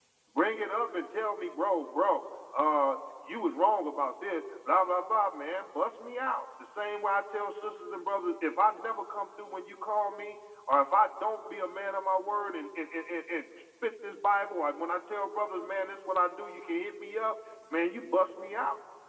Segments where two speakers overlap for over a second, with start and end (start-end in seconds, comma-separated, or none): none